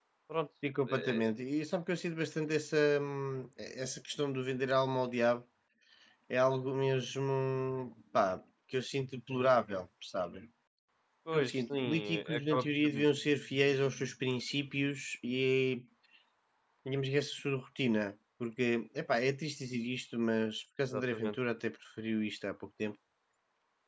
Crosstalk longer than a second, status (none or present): present